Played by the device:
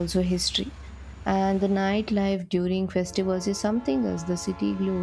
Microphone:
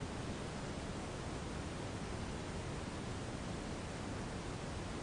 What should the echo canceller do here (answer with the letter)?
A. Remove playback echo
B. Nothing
B